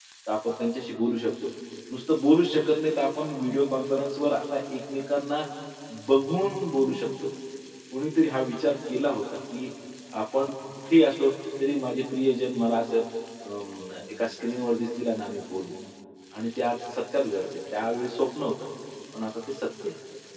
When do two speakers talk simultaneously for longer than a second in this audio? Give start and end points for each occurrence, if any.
none

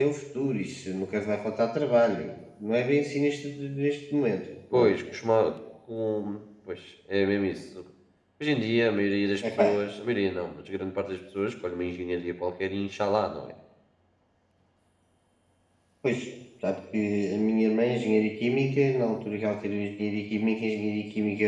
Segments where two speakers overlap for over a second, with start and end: none

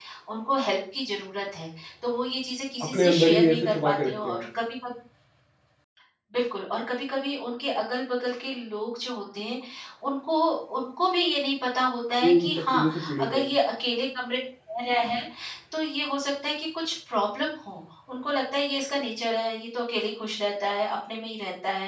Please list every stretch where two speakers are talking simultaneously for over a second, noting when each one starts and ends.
2.8-4.4, 12.2-13.5

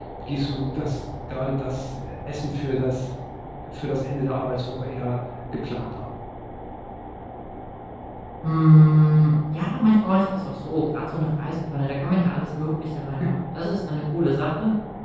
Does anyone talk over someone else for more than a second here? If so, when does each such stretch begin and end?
none

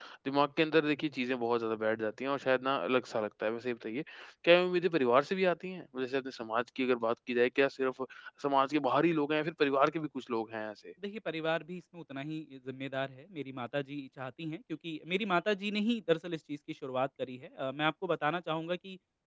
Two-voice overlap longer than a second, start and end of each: none

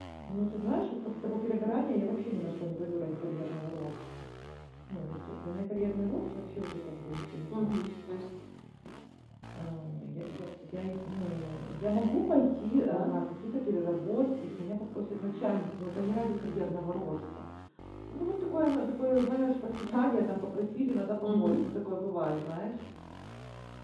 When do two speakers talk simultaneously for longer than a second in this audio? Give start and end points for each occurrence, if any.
none

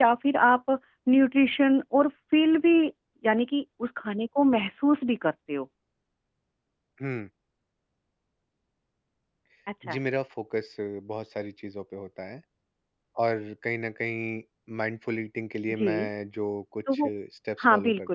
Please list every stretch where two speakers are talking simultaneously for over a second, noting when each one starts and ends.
none

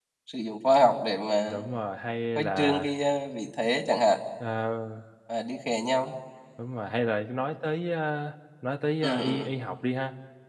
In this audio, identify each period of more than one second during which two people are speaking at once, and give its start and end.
none

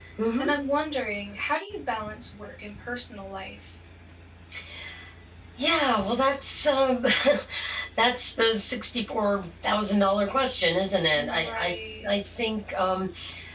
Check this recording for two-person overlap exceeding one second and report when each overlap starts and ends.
11.1-12.4

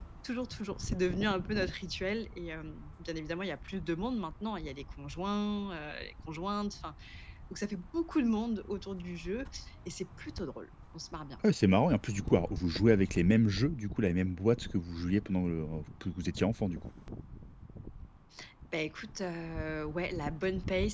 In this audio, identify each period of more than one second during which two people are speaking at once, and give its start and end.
none

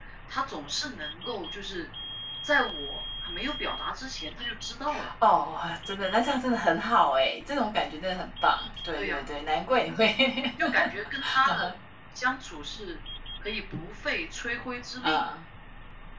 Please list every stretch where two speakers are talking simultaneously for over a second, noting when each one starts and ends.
none

